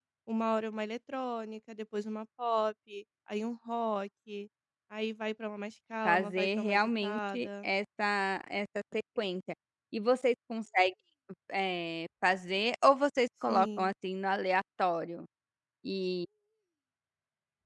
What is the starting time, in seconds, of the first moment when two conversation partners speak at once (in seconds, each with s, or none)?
6.0 s